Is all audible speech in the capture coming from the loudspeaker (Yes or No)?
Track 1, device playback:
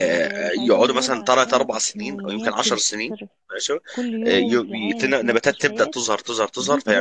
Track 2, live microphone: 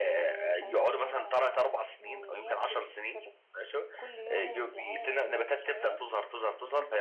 Yes